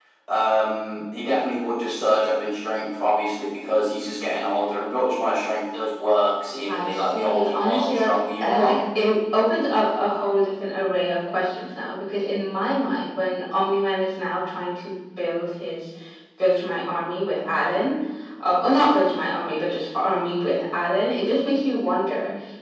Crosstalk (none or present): present